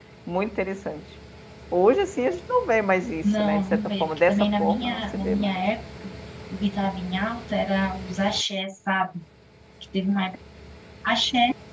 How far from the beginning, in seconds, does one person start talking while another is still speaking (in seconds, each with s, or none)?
3.2 s